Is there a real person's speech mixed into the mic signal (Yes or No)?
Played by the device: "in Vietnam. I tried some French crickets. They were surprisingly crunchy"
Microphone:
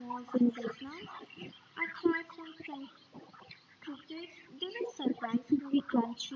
No